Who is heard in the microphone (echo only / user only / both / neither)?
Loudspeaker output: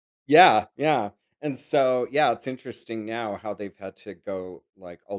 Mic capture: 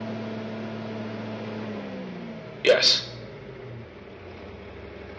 user only